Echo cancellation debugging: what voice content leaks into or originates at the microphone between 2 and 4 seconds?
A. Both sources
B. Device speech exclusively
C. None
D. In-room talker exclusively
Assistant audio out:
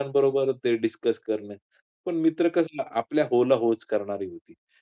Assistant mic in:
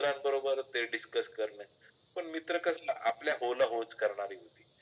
B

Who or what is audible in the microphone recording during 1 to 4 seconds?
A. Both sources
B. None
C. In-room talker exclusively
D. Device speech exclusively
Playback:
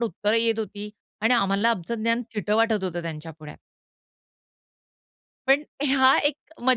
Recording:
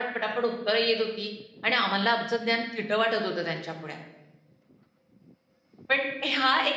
D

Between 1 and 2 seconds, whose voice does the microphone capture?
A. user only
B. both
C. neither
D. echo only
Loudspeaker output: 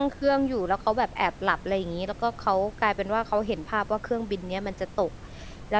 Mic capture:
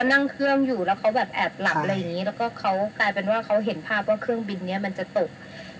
B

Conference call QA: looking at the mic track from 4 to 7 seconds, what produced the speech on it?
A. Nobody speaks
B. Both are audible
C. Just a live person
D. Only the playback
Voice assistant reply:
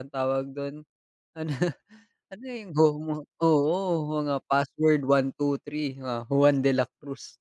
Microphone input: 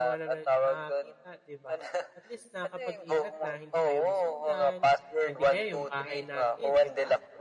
B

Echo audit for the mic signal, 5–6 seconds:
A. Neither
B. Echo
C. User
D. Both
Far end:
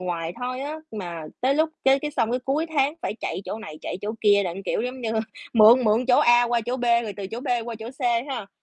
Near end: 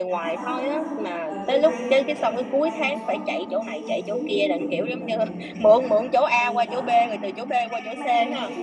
D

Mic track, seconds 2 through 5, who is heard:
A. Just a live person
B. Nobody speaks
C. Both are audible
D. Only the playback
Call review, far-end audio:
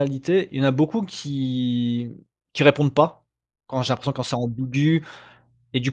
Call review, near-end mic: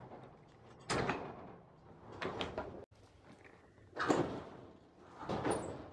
B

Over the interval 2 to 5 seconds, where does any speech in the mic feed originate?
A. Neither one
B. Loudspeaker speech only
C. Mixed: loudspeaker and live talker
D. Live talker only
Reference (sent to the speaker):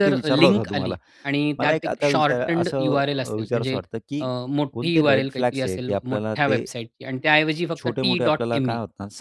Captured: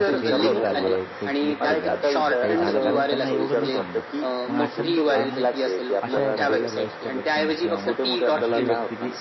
C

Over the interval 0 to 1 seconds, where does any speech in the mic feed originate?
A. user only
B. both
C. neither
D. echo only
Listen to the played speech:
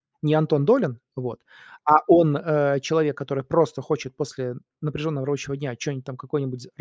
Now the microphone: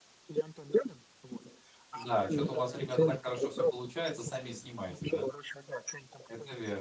D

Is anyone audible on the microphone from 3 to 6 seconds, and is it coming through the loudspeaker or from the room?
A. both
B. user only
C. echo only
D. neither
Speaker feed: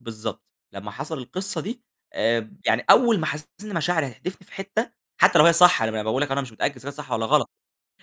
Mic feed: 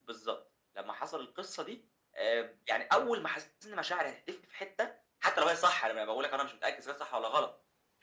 C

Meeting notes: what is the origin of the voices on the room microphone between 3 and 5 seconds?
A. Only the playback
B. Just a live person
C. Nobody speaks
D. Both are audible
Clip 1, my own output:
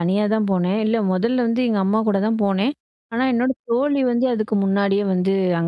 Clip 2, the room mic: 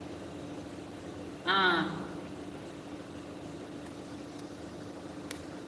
C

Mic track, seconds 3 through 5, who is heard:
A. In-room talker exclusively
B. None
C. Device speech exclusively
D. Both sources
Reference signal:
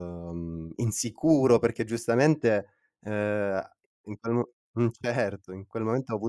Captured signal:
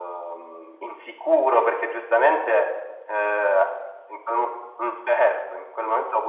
C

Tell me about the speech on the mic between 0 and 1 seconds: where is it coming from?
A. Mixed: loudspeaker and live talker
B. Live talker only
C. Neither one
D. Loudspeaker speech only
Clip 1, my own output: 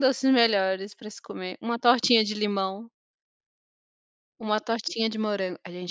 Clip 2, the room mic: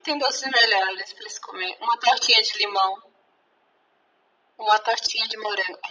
D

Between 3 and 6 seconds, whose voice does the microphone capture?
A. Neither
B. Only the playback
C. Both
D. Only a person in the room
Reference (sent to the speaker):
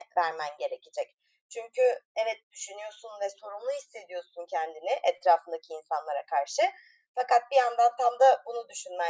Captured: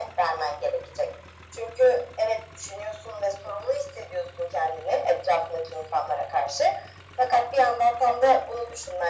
B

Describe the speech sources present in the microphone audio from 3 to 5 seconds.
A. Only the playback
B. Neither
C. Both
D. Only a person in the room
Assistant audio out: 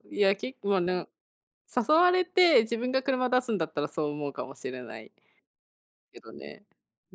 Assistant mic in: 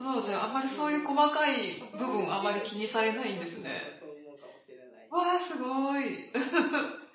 C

